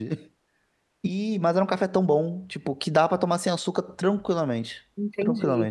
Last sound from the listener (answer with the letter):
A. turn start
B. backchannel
A